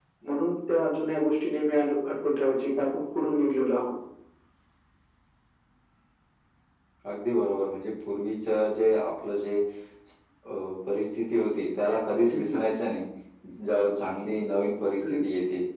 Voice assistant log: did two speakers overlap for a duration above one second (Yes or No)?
No